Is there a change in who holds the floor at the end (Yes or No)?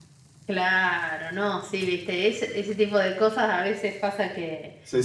No